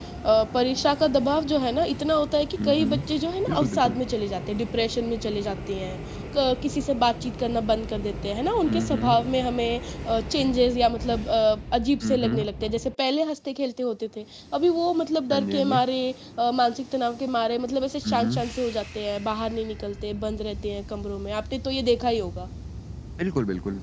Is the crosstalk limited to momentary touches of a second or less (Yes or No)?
No